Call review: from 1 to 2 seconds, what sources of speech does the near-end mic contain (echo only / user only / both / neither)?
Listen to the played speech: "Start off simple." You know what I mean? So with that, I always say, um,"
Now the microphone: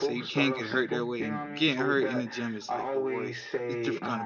both